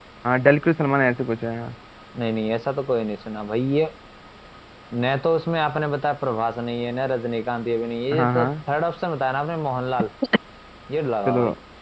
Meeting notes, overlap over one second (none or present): none